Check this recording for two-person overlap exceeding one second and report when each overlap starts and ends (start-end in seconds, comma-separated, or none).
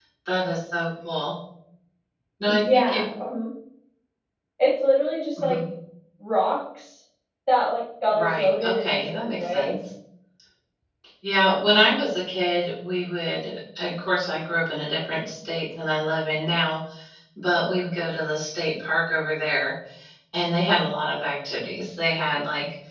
8.1-9.7